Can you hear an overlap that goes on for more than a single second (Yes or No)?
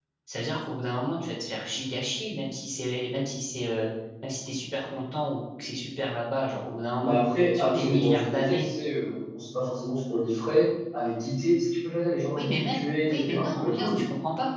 Yes